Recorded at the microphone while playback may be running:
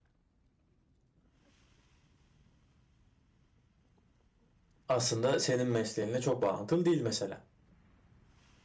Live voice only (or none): aslında senin mesleğinle çok bağlantılı değil mesela.